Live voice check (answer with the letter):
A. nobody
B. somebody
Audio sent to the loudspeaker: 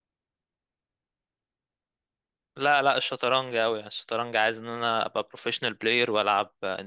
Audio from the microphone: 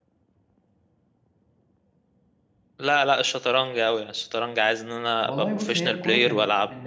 B